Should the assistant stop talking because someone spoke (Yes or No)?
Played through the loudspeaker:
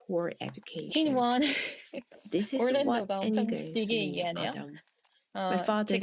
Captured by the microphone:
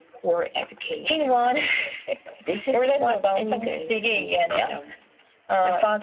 No